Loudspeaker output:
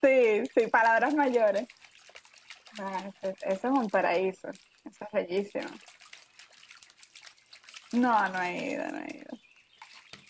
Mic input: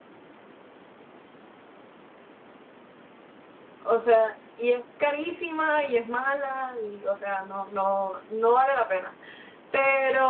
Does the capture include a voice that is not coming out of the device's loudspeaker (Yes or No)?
Yes